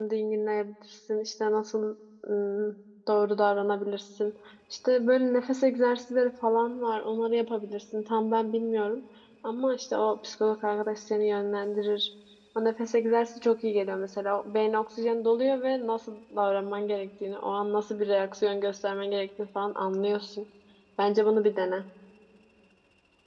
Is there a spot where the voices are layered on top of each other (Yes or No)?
No